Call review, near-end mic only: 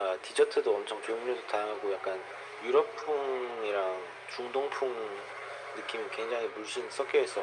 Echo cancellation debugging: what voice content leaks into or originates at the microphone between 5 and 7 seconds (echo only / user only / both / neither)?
echo only